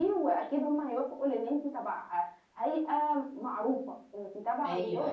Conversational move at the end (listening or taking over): taking over